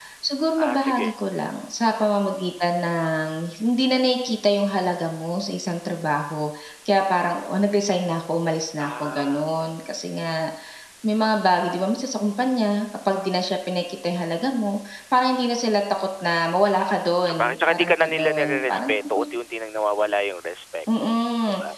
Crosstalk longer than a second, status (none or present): present